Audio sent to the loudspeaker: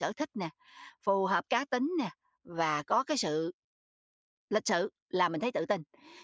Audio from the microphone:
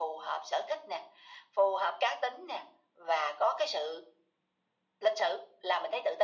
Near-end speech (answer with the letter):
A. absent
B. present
A